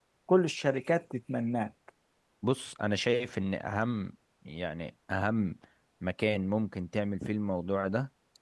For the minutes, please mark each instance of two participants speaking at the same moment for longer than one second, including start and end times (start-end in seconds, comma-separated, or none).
none